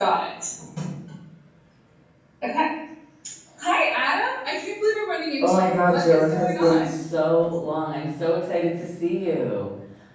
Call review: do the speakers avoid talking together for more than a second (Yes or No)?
No